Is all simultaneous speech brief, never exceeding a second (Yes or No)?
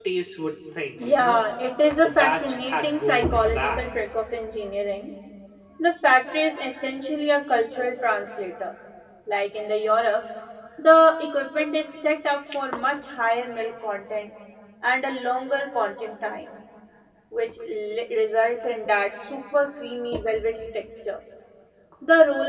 No